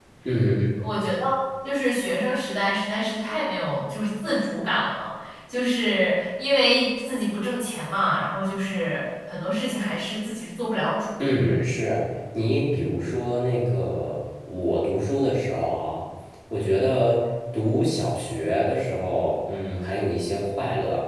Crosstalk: none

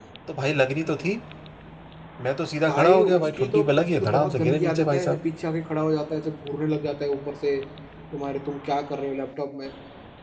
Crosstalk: present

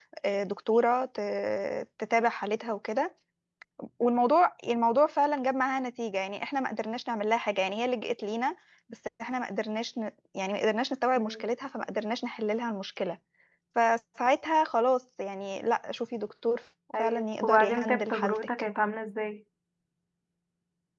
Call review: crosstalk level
present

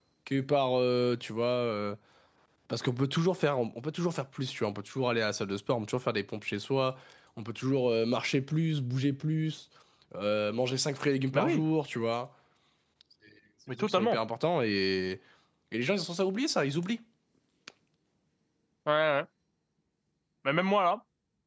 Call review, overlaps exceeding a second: none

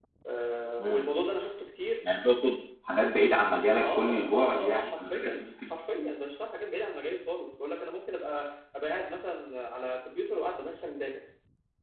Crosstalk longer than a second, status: present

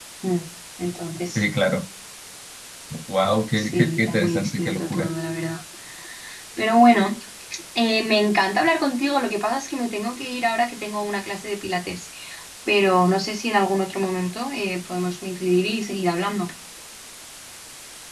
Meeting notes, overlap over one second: present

